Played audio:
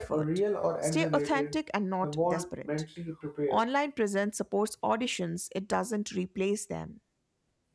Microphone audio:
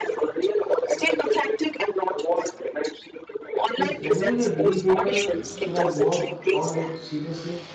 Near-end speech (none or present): present